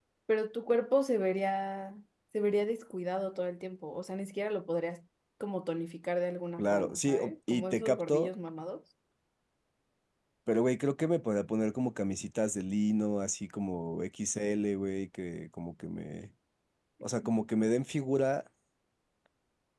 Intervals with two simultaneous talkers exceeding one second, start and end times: 6.6-8.3

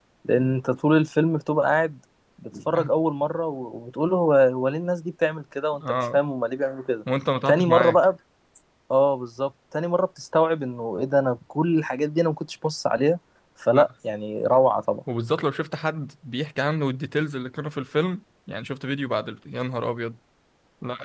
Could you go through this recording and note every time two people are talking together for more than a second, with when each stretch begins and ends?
none

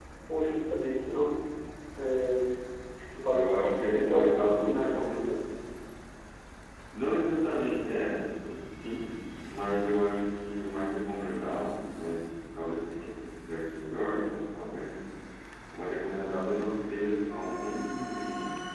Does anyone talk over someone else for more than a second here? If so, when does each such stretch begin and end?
3.1-5.2

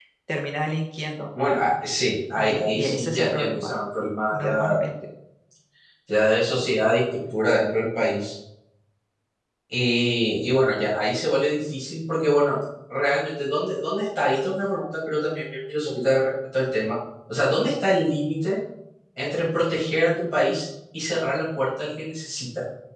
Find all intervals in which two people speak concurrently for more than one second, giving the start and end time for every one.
2.4-3.7

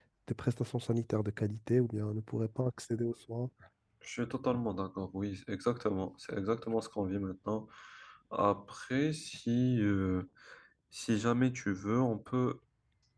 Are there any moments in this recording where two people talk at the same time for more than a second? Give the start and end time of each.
none

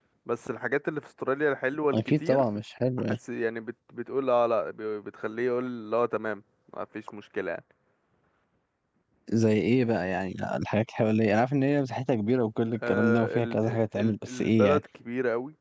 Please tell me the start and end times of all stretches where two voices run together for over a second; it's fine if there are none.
12.7-14.8

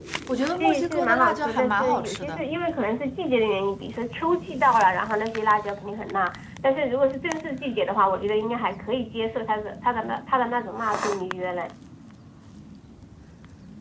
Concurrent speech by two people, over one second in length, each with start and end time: 0.6-2.4

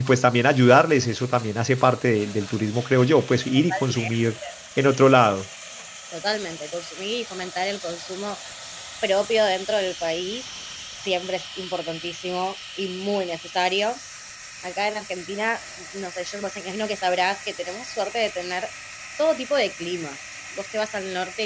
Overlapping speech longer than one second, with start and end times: none

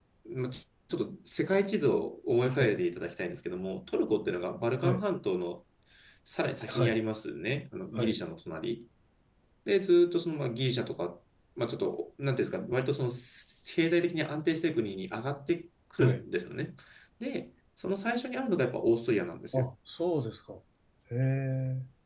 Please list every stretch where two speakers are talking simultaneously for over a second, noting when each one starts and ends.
none

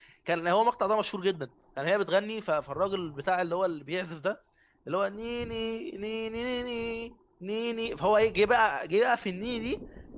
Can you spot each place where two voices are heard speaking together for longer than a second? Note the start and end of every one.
none

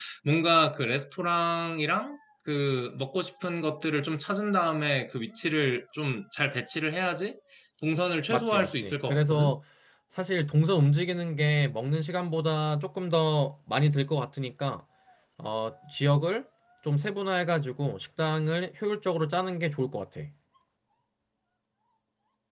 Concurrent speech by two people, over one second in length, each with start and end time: 8.3-9.5

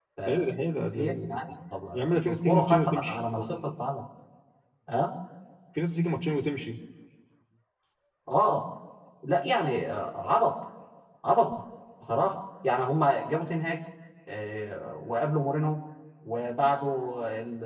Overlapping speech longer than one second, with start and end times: 1.9-3.2

